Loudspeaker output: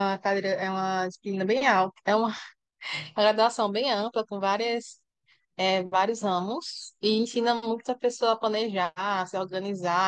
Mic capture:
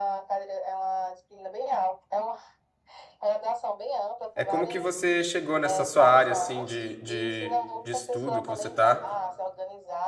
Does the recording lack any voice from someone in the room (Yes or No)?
No